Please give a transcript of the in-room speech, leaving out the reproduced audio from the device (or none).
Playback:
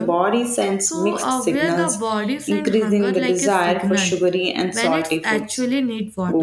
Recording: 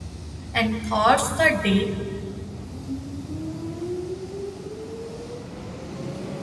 and thoughts the day